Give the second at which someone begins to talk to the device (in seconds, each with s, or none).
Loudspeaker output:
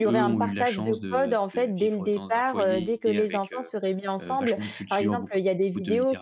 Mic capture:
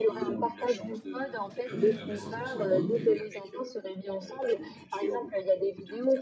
1.7 s